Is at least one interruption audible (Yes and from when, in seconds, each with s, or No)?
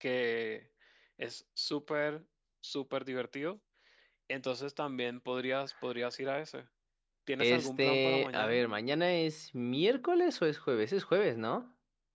Yes, from 7.4 s